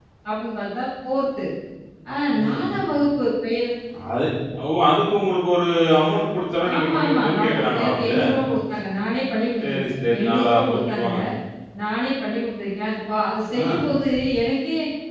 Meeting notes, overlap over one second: present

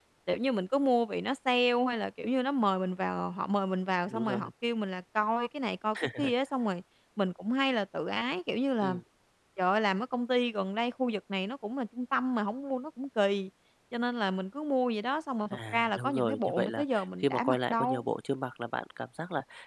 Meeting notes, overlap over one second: present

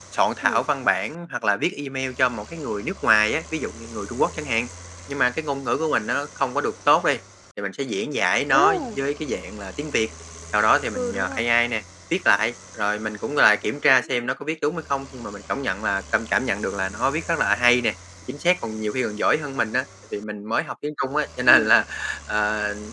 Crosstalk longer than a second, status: none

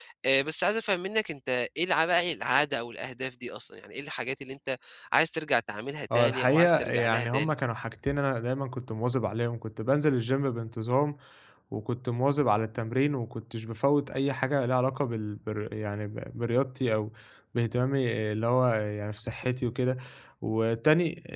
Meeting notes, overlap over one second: present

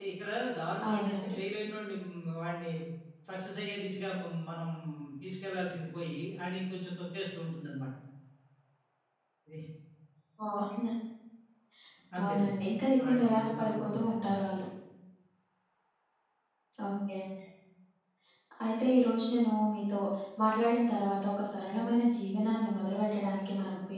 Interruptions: present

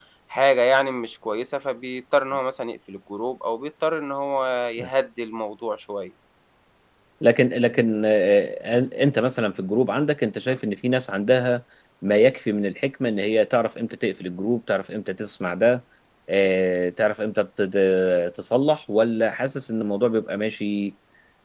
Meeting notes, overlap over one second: none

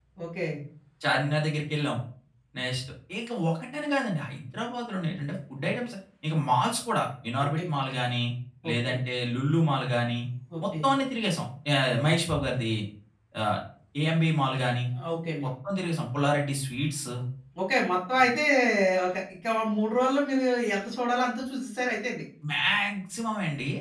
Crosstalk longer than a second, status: none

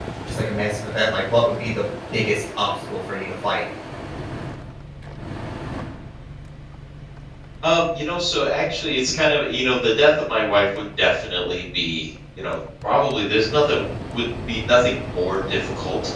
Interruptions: none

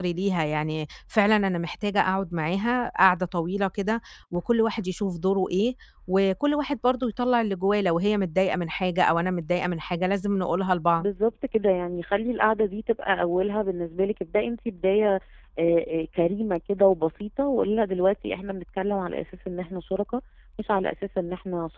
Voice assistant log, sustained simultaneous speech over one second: none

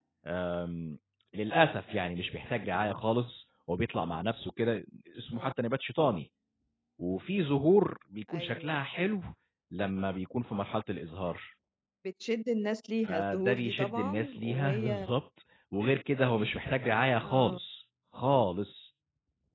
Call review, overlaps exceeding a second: present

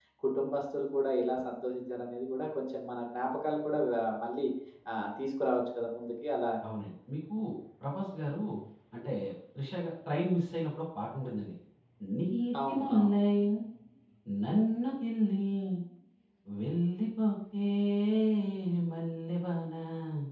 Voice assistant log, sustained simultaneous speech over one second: none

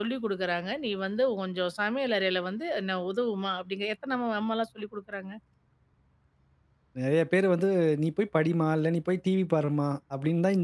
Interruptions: none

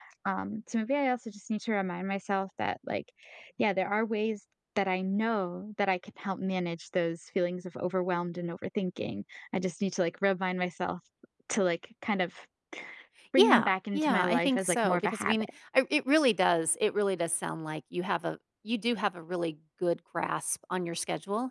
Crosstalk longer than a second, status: present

